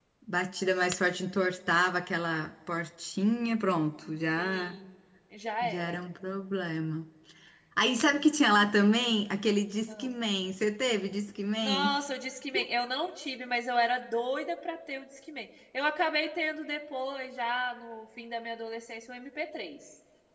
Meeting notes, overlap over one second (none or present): none